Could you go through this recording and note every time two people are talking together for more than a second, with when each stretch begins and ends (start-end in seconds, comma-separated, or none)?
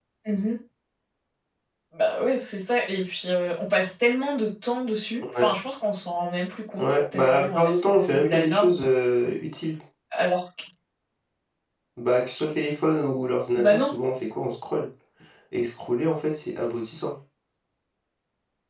6.8-8.8